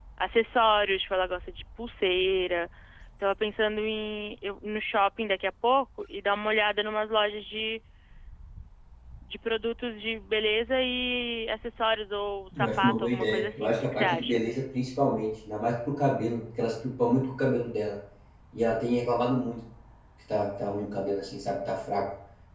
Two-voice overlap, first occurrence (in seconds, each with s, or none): 12.5 s